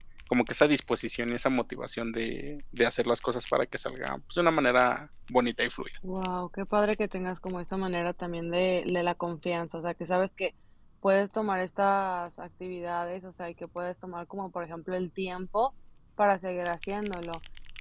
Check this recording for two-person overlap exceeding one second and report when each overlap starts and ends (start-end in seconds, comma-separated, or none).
none